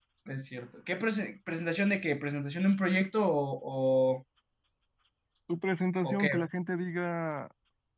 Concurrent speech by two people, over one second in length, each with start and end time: none

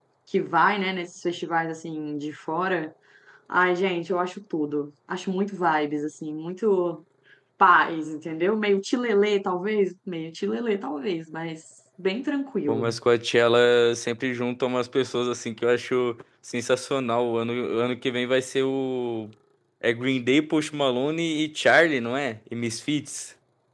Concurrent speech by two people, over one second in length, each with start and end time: none

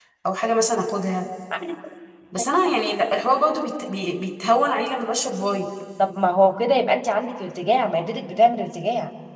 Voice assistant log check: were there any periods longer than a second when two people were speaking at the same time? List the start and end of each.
none

